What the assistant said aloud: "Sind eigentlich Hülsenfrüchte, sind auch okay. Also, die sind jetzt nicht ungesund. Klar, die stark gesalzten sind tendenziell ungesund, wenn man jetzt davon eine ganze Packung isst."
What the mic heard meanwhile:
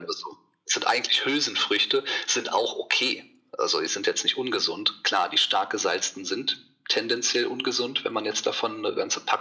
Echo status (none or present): present